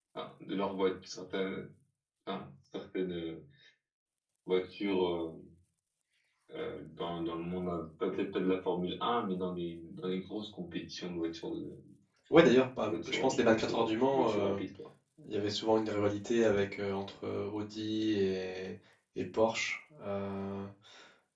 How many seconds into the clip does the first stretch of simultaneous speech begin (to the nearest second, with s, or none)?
13 s